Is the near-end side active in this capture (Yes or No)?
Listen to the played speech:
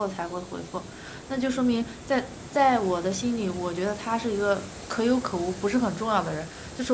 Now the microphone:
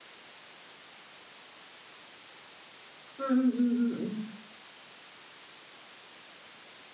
Yes